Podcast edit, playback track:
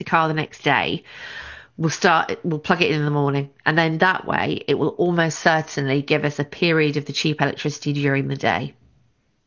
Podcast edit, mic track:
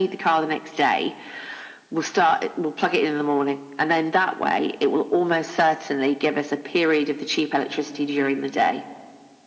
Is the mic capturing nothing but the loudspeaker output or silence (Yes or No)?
Yes